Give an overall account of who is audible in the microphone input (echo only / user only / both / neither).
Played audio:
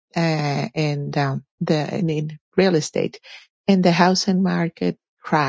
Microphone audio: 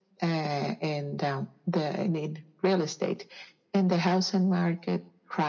echo only